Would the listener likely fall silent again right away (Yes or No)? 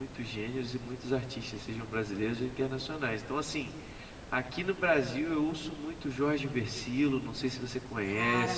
No